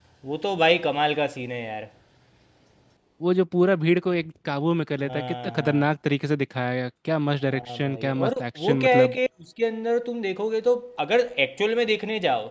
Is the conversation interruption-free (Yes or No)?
No